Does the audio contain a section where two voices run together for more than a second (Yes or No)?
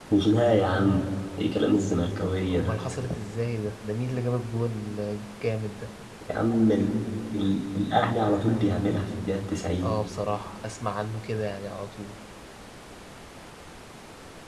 No